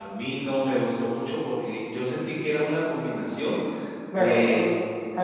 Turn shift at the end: Yes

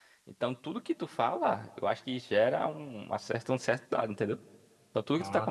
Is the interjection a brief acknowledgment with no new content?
Yes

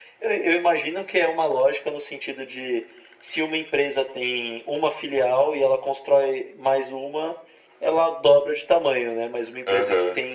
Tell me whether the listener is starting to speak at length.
No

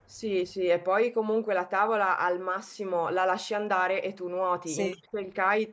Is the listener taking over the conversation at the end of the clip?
No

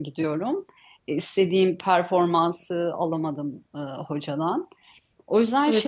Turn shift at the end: Yes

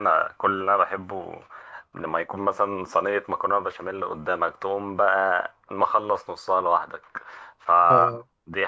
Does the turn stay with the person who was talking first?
Yes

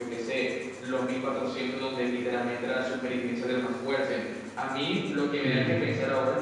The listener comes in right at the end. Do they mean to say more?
No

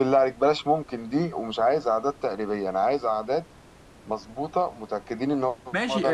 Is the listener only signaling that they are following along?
No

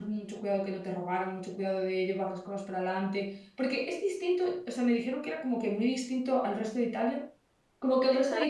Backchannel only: Yes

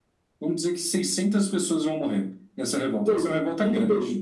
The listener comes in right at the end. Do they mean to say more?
Yes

